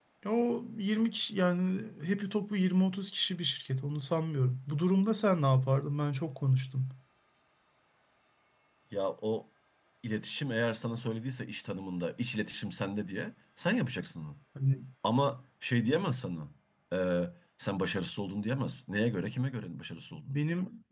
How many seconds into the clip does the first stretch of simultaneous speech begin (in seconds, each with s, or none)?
none